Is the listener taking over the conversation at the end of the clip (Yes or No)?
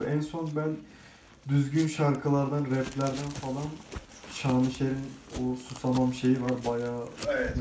Yes